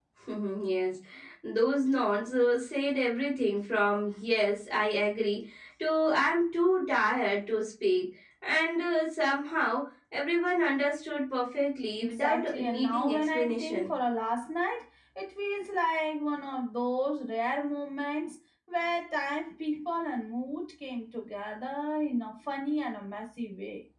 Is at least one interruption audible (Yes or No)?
Yes